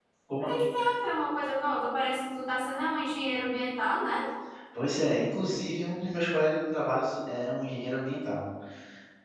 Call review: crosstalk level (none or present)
none